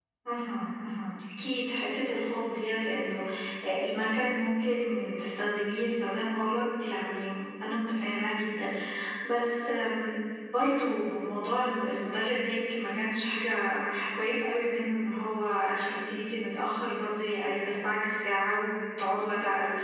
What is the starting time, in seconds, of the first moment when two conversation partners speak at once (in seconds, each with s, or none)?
none